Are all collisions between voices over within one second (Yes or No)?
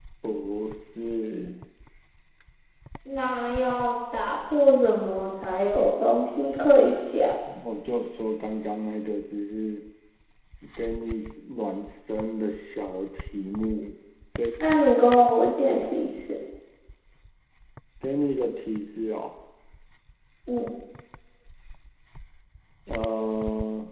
Yes